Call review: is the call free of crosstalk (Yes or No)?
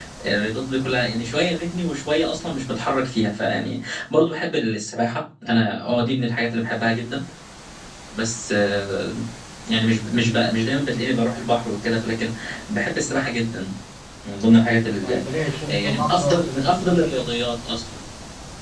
No